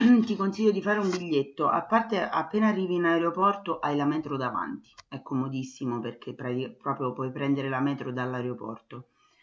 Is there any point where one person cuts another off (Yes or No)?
No